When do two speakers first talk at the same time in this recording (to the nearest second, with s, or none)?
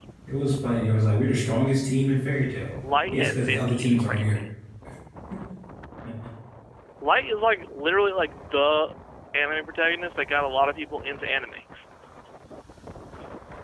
3 s